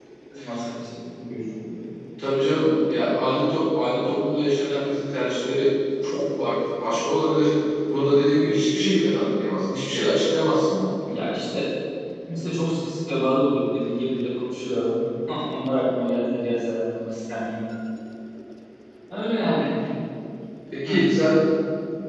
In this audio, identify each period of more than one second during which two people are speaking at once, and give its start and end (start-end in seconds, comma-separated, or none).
none